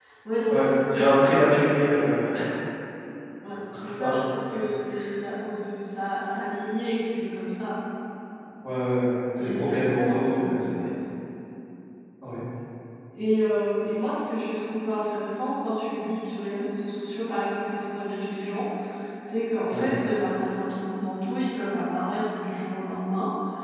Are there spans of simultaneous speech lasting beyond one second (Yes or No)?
Yes